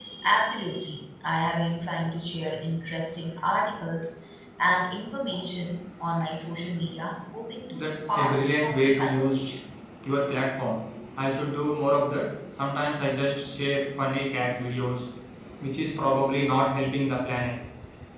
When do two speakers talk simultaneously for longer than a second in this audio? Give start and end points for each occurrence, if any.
7.7-9.5

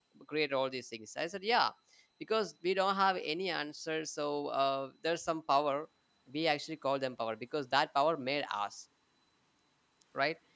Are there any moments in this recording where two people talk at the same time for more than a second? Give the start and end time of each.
none

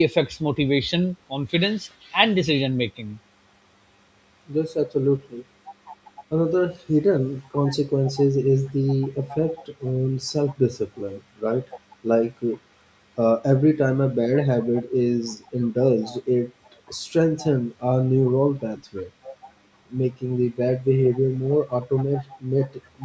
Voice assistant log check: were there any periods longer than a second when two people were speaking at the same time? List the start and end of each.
none

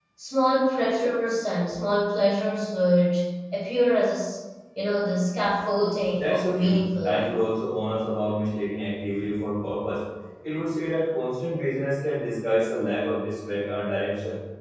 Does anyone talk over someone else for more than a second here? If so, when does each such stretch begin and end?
5.8-7.3

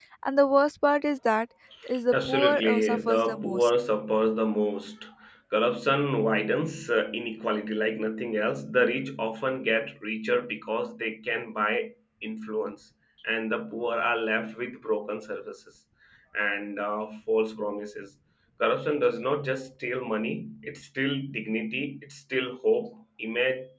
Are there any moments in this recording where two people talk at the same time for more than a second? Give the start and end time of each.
2.1-3.7

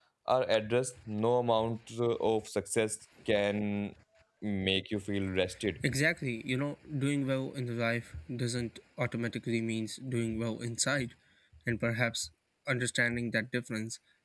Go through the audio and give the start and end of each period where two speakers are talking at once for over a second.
none

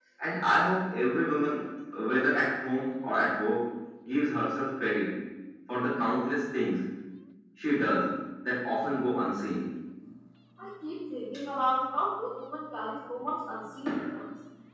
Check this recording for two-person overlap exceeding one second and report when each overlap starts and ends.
none

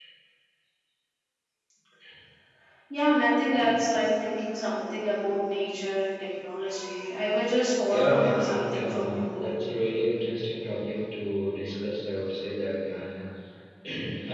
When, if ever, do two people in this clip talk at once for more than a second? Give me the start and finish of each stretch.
7.9-9.5

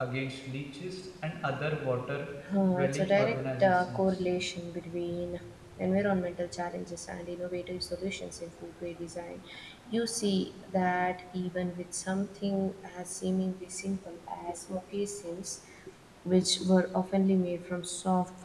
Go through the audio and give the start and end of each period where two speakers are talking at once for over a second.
2.7-4.2

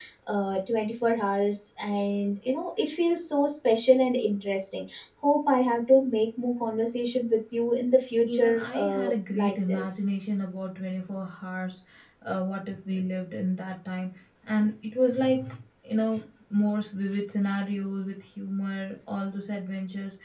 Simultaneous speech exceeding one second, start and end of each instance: 8.3-10.1

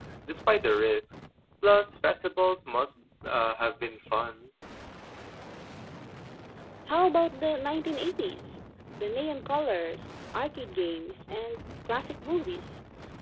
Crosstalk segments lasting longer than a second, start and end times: none

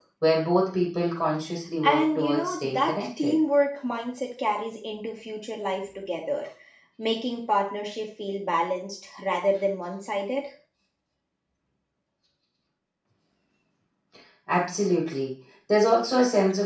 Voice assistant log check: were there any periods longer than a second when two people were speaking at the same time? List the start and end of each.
1.8-3.4

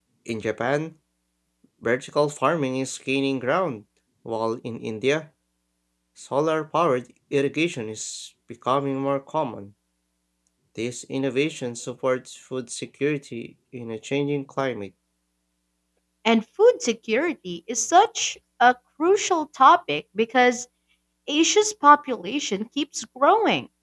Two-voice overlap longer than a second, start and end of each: none

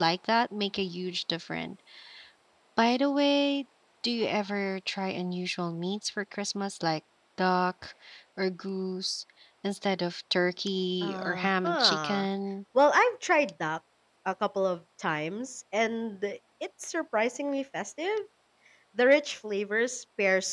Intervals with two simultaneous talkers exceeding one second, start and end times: 11.0-12.3

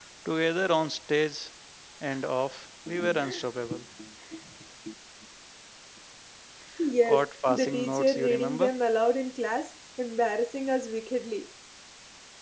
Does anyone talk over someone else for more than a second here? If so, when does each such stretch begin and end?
7.0-8.7

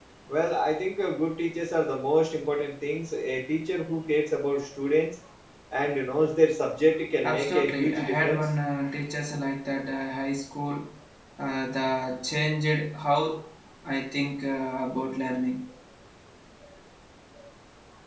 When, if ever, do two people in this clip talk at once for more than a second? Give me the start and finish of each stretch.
7.2-8.4

